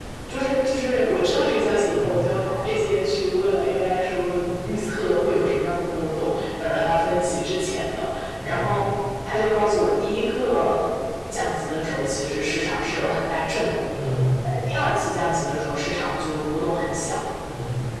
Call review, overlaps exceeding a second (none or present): none